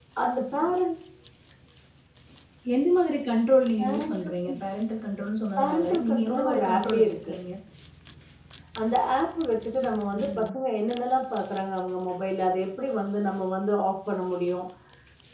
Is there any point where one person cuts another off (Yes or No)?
Yes